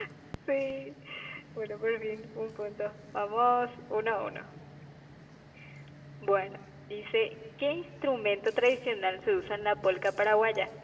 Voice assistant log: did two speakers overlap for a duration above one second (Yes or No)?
No